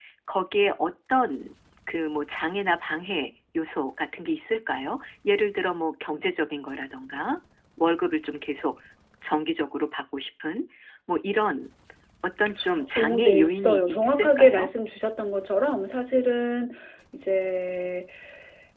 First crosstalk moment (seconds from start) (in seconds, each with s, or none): 12.9 s